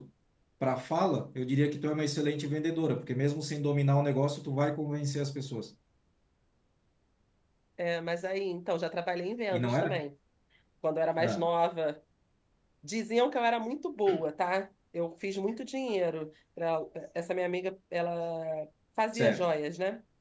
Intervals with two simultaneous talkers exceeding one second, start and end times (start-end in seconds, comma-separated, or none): none